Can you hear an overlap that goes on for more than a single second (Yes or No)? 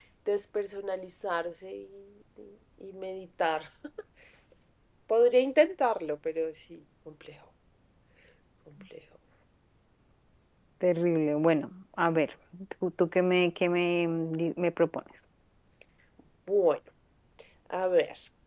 No